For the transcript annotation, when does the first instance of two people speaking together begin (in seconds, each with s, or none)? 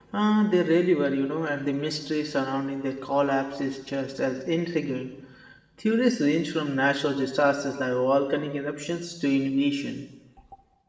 none